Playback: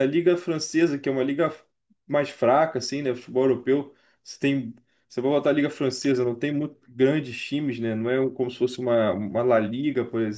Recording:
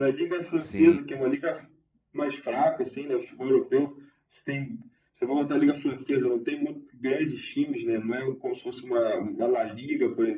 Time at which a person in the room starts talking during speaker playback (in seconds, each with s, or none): 0.6 s